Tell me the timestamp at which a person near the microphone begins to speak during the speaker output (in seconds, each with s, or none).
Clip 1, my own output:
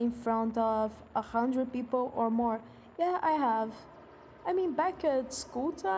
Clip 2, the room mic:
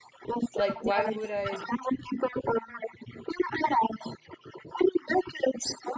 0.5 s